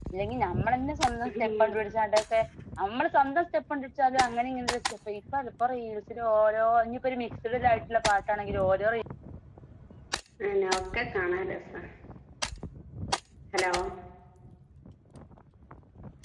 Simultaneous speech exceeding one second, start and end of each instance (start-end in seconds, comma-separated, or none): none